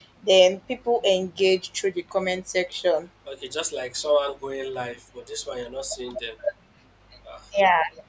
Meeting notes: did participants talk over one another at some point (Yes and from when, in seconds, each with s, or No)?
No